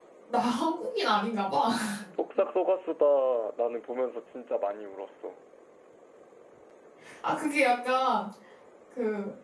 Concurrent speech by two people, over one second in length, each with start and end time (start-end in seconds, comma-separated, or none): none